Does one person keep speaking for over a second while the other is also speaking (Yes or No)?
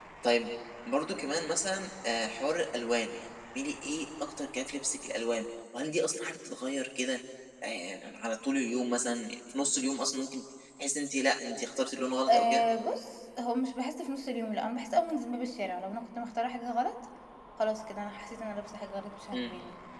No